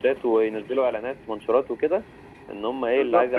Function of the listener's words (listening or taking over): taking over